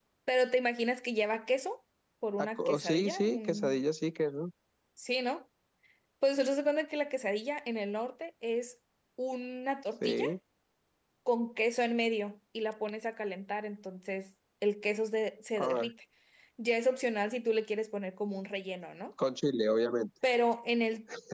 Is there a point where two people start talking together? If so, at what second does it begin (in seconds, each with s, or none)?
2.6 s